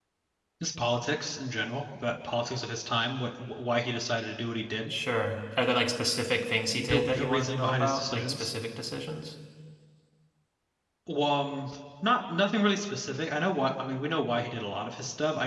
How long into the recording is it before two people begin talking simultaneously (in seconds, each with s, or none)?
6.7 s